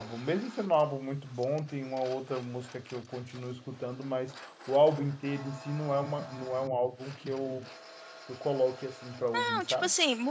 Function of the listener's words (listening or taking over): taking over